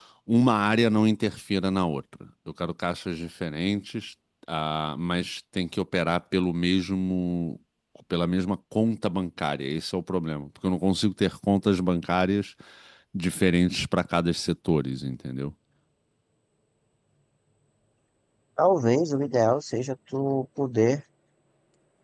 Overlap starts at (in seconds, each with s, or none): none